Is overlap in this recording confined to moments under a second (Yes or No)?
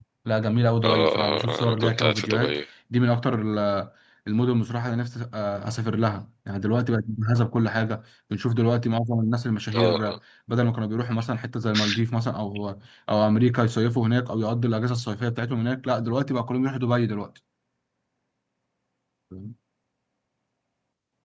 No